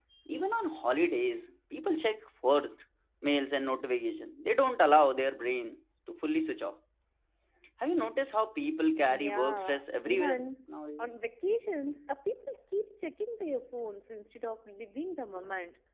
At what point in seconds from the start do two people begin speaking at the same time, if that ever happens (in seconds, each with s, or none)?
9.1 s